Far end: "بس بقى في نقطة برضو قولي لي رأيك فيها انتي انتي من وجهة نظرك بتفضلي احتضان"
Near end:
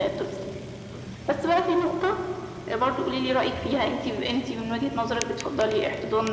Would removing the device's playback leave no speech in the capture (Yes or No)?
Yes